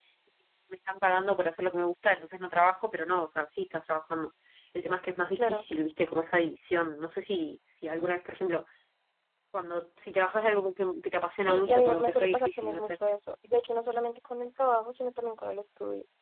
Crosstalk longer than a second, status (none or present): present